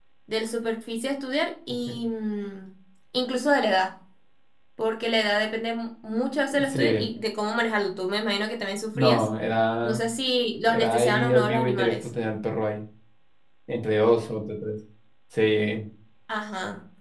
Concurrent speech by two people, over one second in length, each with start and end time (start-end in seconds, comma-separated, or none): 10.7-12.1